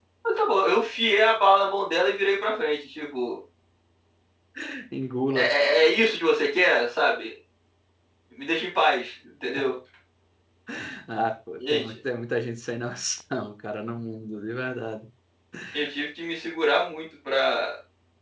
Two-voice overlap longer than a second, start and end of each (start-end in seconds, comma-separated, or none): none